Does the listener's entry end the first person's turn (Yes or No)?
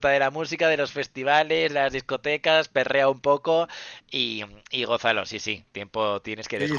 Yes